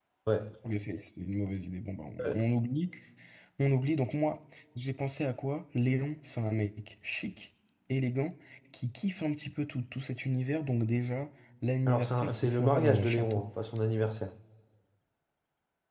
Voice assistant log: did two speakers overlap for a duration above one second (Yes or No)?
Yes